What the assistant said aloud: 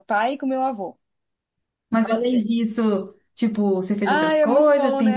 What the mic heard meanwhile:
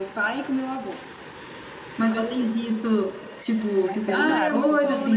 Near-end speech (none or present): present